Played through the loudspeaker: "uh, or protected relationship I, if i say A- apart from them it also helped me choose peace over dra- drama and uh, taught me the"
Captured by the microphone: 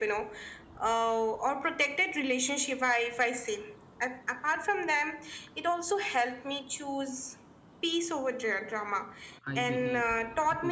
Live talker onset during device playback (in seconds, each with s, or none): 9.4 s